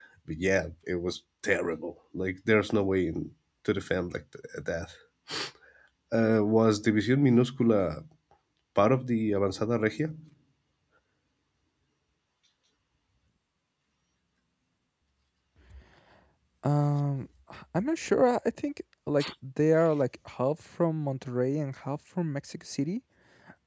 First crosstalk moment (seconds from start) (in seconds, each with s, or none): none